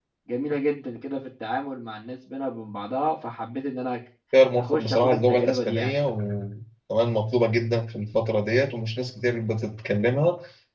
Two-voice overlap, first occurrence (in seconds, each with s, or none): 4.6 s